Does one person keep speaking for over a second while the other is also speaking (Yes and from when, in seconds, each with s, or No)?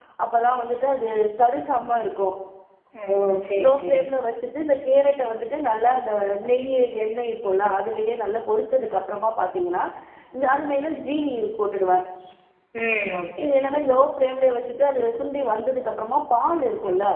No